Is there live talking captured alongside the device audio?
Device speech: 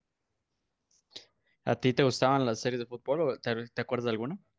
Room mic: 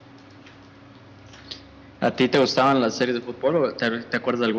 No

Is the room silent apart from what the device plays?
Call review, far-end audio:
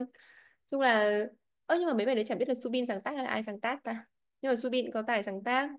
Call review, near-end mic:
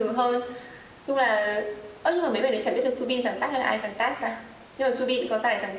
Yes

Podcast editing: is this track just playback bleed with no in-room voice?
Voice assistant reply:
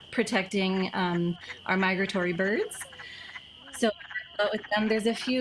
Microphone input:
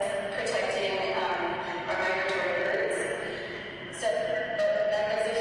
Yes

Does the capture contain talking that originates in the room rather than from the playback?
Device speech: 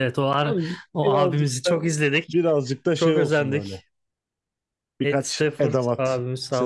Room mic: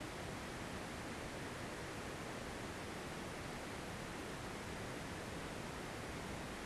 No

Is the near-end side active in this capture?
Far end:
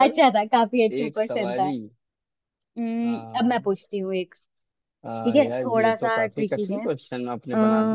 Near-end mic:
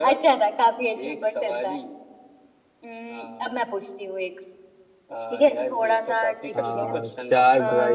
Yes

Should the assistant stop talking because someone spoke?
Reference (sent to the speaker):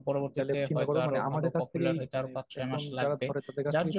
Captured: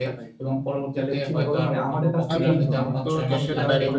Yes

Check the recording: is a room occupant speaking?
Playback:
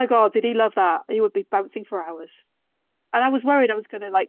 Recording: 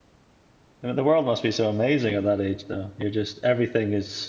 Yes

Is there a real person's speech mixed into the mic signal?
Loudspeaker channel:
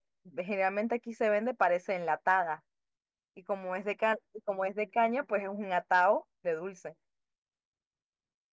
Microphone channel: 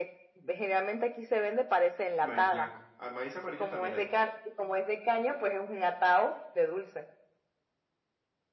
Yes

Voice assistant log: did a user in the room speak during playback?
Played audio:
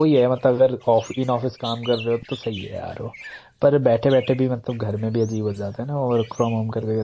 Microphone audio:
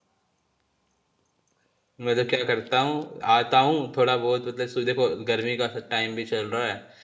Yes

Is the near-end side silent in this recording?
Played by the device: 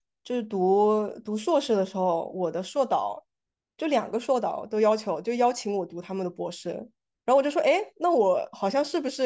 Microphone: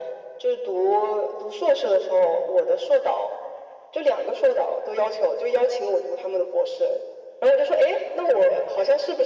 Yes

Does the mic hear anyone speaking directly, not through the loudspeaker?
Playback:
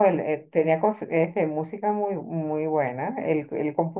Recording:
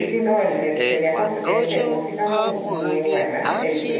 Yes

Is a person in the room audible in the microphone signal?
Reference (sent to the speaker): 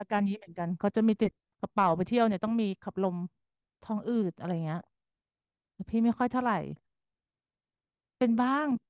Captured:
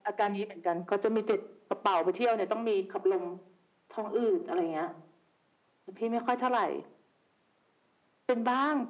No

